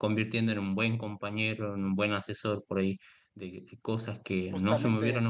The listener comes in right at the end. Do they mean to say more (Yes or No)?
No